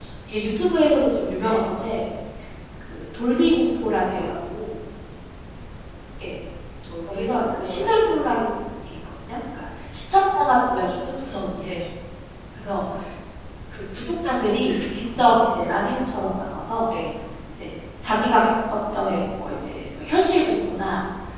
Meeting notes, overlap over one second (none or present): present